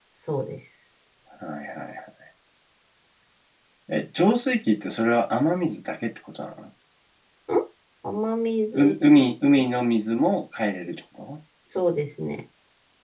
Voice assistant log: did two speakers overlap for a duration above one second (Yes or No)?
No